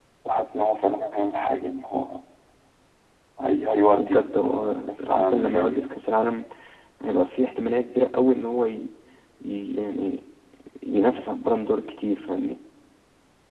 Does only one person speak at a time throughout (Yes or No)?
No